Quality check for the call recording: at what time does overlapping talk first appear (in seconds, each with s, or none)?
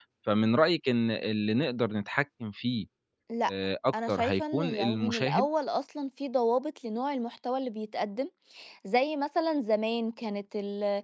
4.1 s